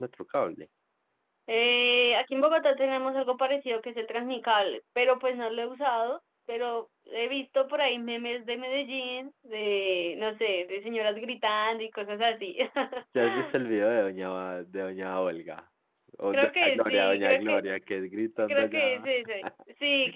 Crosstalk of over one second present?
Yes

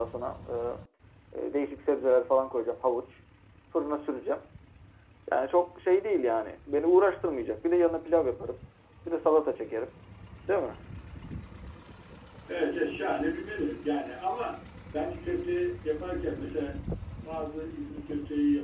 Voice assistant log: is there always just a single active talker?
Yes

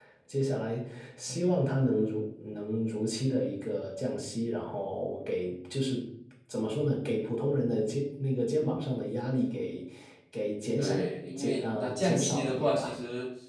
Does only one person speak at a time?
No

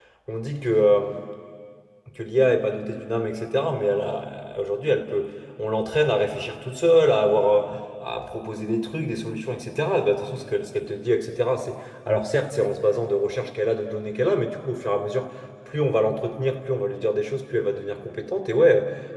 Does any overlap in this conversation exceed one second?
No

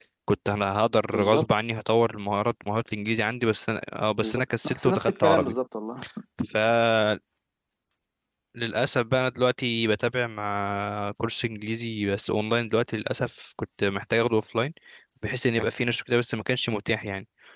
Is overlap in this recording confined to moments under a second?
No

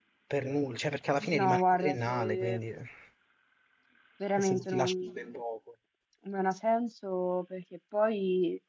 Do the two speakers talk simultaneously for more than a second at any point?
Yes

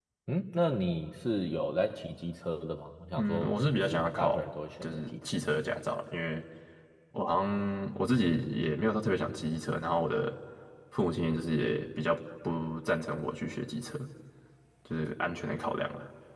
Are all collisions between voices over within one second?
No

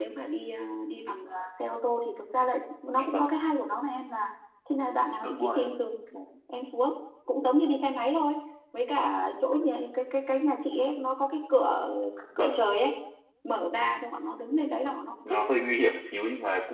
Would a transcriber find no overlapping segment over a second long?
Yes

